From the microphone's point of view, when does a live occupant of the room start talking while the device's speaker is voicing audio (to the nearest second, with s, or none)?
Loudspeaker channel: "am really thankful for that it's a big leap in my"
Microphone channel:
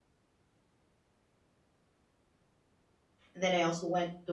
3 s